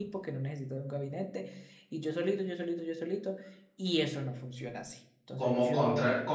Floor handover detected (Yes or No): Yes